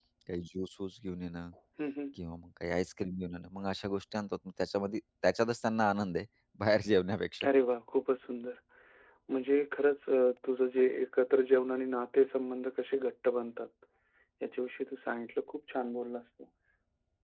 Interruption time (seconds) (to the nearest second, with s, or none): none